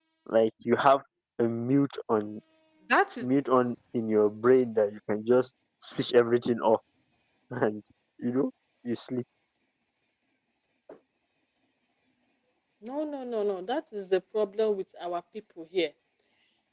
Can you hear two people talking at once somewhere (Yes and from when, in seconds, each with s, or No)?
No